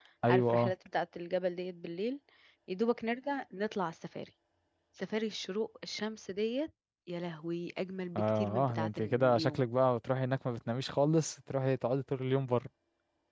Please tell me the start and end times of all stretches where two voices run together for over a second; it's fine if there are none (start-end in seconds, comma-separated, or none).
8.2-9.6